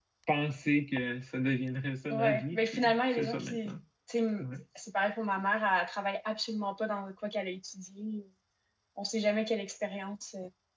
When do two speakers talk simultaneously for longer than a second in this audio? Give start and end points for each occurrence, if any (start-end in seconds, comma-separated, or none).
2.1-3.8